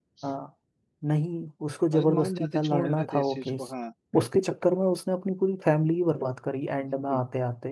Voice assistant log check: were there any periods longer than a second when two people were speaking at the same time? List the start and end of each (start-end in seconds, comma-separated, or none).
1.9-3.7